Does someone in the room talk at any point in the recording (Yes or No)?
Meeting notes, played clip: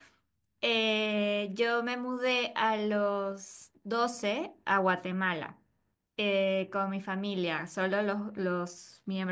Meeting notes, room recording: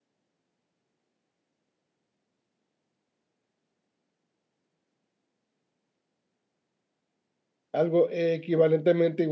Yes